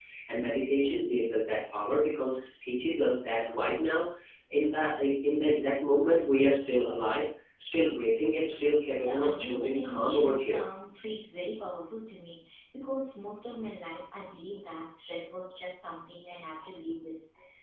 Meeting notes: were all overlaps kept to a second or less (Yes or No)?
No